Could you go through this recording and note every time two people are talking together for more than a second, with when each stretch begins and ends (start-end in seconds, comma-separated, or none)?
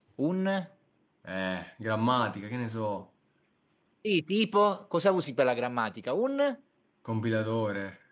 none